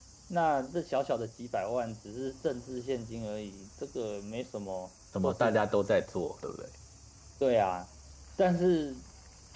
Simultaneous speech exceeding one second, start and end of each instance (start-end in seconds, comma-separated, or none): none